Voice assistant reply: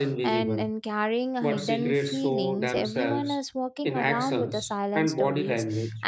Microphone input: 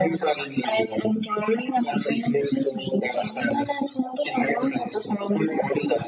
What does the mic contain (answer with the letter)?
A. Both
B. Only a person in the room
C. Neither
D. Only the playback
D